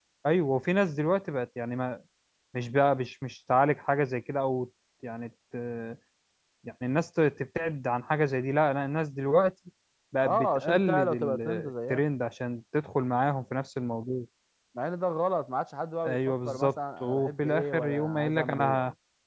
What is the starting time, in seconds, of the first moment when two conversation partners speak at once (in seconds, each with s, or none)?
10.2 s